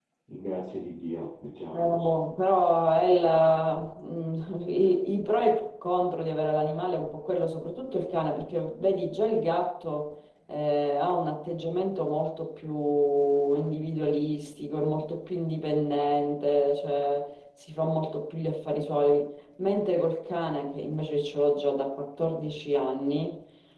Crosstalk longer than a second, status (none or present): none